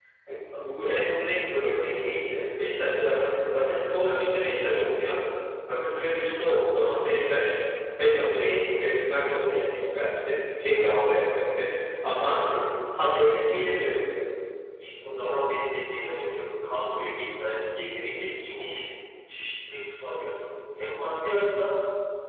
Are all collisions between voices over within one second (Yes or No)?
Yes